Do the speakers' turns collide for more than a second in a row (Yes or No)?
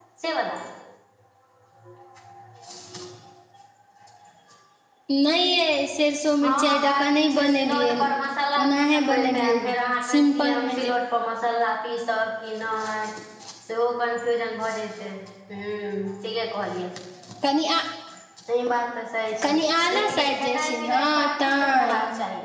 Yes